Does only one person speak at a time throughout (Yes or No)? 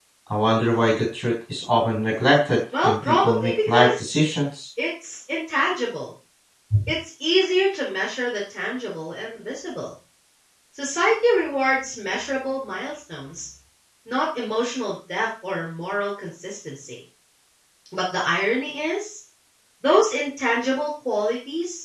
No